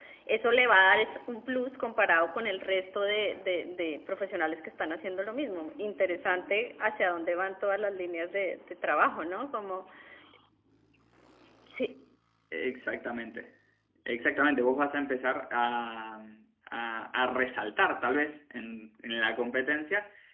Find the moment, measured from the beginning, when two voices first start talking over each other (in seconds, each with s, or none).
none